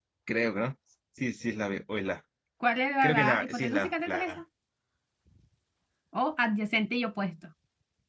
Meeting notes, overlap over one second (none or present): present